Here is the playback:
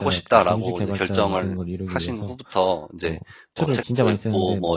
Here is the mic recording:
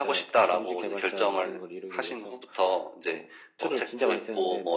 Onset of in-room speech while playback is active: none

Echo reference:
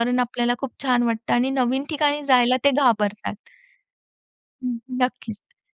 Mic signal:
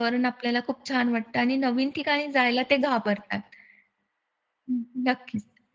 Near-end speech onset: none

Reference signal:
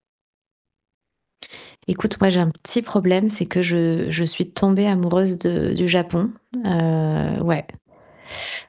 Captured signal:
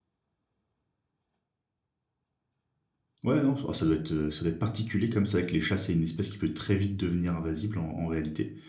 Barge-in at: 3 s

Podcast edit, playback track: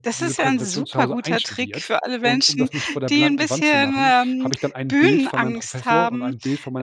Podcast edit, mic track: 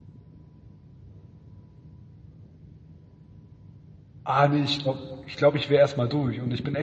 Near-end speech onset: 4 s

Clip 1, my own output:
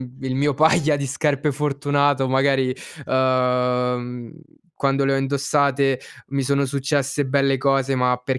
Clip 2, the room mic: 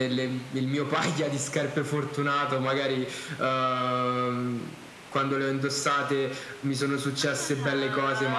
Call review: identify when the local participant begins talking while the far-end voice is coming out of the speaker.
7 s

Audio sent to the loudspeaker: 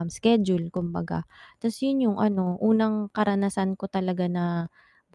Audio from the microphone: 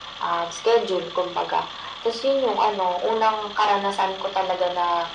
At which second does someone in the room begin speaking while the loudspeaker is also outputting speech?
none

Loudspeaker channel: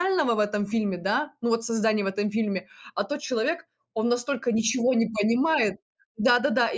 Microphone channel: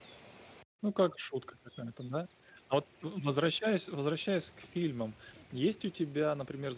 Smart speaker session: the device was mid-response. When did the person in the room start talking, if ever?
1 s

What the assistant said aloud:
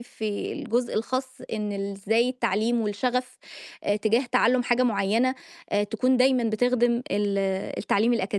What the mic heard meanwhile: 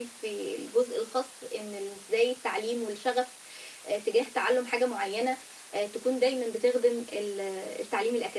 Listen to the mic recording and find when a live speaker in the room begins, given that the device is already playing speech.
none

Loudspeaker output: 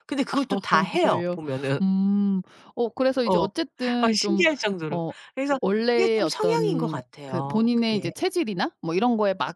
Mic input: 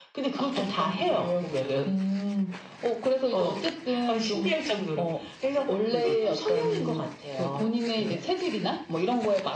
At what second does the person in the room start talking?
6 s

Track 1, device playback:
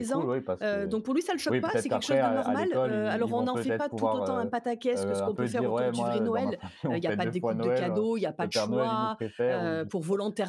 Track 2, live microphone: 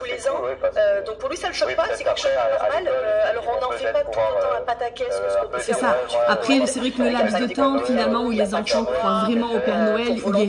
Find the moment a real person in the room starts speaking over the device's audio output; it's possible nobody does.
6 s

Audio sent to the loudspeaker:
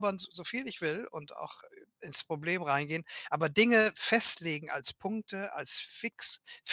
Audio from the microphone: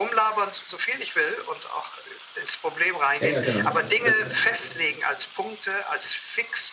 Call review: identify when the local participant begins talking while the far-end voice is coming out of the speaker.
3 s

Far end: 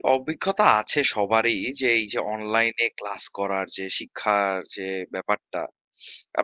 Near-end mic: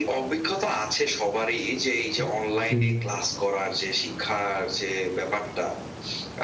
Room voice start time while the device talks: 2 s

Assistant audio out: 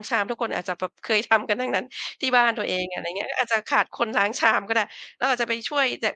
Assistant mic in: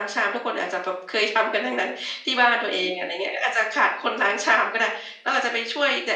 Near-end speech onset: none

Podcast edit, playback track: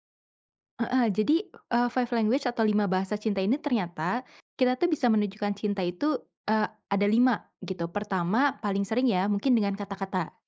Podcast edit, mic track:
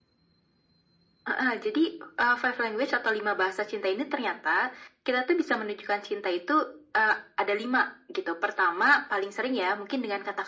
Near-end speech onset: none

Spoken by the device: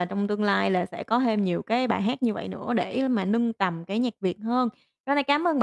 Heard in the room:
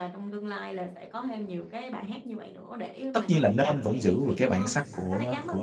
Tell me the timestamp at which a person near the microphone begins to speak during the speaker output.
3 s

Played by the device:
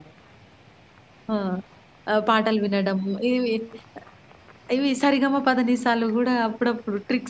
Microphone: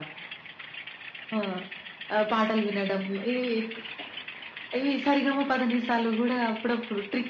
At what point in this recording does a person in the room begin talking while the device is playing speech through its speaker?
none

